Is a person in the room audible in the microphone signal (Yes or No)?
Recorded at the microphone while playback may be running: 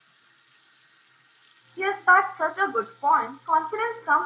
Yes